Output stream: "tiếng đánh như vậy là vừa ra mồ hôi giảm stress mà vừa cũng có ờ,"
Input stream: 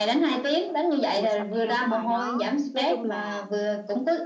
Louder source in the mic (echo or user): echo